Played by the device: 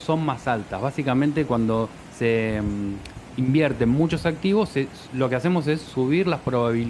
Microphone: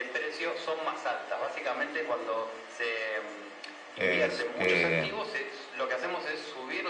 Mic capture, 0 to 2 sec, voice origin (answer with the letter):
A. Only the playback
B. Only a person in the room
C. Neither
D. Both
A